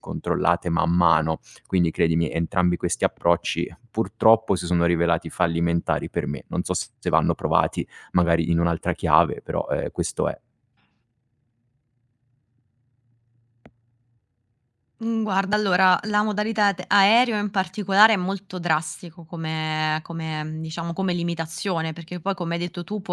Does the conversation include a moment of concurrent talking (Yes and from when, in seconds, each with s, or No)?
No